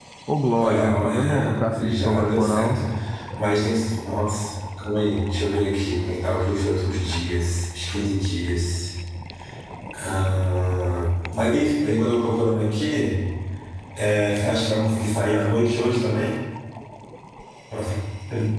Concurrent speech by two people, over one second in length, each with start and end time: 0.6-2.8

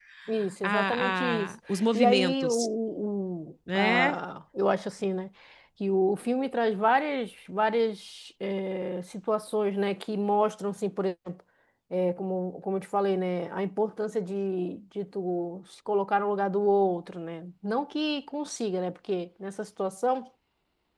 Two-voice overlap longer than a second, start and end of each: 0.6-2.6

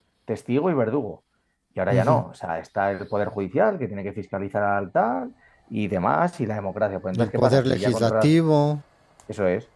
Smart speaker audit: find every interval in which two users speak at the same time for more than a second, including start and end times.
7.1-8.3

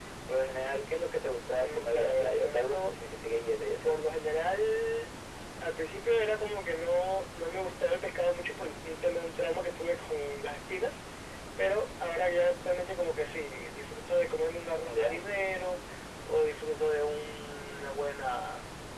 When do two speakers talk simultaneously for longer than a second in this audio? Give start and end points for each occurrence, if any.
1.5-2.9

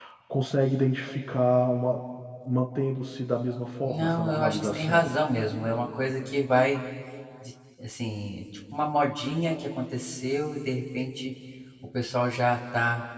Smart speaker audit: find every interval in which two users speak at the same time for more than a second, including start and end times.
3.8-5.1

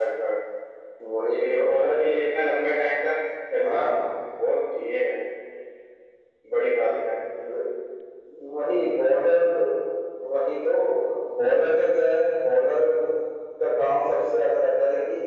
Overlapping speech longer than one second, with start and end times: none

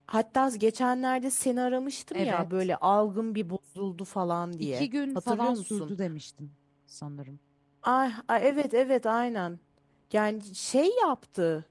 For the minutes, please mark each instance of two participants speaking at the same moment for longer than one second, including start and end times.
4.6-5.9

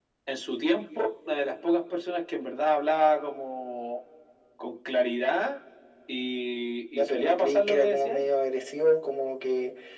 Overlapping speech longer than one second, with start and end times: 7.0-8.2

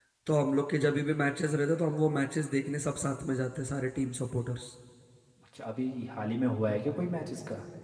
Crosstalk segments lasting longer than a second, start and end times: none

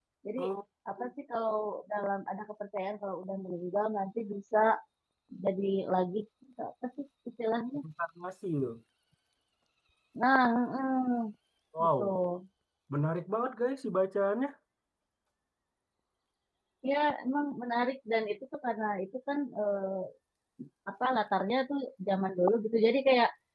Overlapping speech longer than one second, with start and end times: none

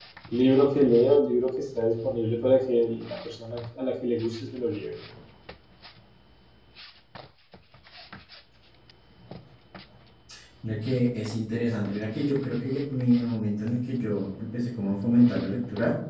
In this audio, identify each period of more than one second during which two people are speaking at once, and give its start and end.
none

